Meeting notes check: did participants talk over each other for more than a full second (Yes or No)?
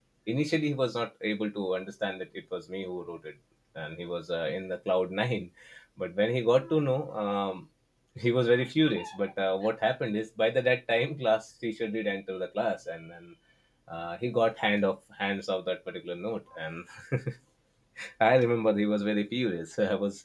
No